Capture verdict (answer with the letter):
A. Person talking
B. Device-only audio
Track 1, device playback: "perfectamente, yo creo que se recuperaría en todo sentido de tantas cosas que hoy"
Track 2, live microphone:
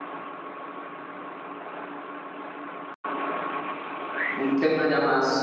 A